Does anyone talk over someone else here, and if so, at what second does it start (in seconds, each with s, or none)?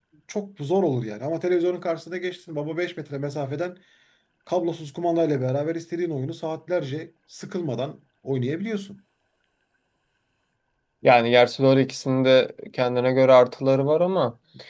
none